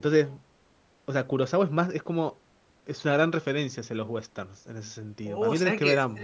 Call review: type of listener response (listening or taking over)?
taking over